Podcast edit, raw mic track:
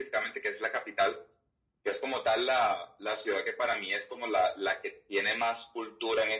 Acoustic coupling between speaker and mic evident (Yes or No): Yes